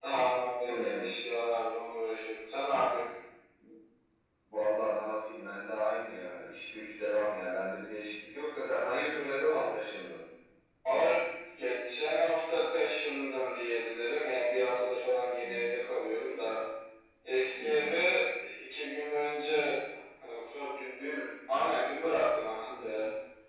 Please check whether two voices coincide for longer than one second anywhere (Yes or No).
No